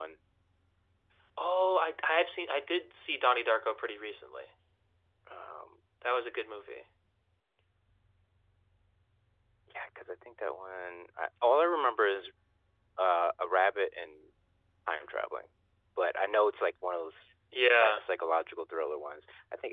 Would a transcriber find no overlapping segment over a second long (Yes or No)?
Yes